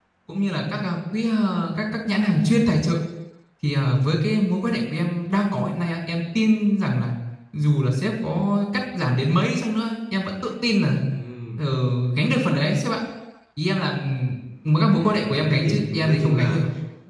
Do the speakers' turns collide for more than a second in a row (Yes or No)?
Yes